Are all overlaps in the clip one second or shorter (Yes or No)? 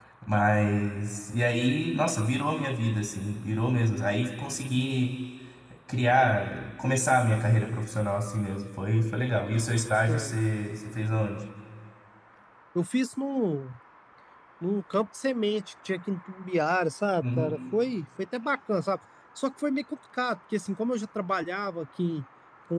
Yes